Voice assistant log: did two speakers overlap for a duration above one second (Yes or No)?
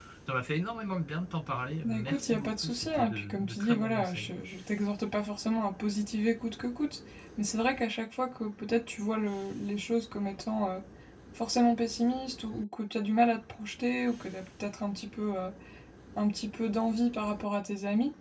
Yes